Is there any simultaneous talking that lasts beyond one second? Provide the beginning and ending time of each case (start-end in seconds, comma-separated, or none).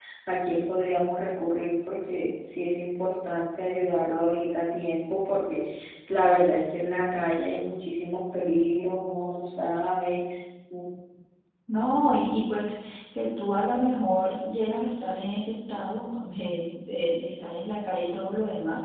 none